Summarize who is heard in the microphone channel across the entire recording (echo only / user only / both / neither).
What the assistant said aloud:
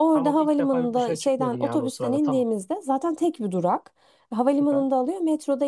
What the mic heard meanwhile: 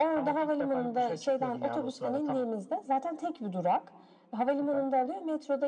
echo only